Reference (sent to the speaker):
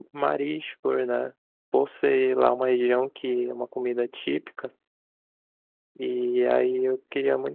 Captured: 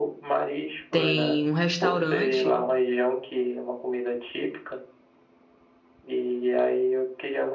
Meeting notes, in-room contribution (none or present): present